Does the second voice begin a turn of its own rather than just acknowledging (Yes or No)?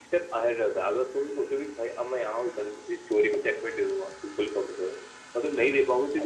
No